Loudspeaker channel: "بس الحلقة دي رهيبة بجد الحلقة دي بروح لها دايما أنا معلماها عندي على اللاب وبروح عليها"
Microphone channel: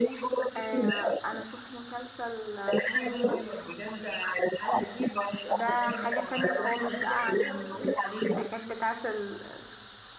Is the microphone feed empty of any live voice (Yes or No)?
No